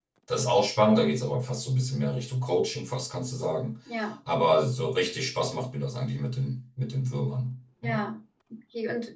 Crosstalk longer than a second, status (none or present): none